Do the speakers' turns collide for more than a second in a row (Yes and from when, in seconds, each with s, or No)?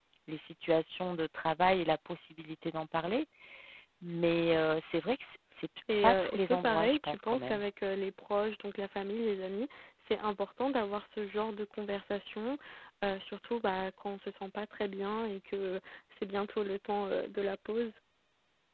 Yes, from 5.9 s